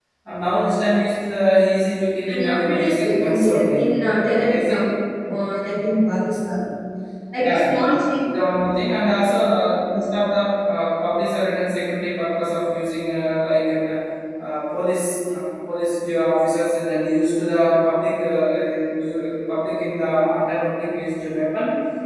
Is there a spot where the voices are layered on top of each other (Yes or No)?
Yes